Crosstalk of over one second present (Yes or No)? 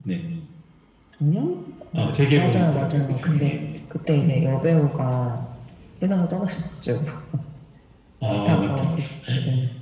Yes